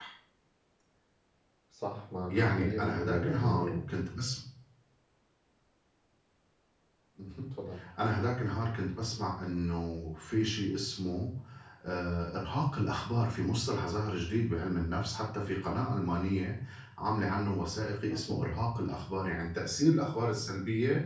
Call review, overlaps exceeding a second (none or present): present